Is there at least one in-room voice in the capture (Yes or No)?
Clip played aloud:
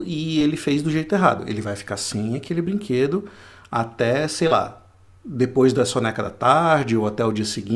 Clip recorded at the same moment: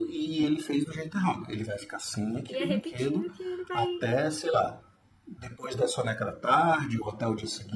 Yes